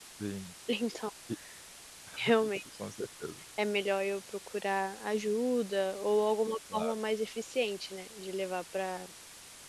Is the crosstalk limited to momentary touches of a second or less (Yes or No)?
Yes